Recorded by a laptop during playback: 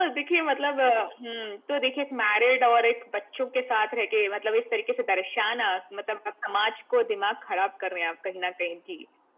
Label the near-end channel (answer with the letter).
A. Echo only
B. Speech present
A